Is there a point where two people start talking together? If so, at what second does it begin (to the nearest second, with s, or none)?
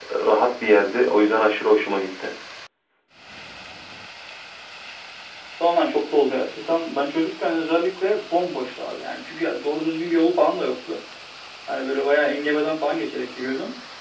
none